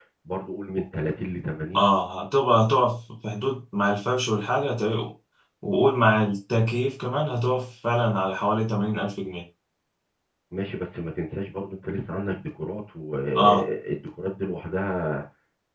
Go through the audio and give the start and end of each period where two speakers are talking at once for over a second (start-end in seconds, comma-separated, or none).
none